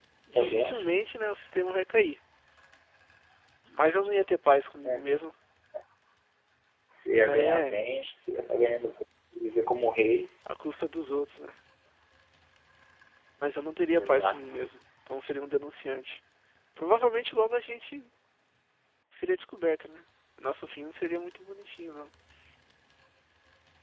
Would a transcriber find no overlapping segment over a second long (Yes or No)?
Yes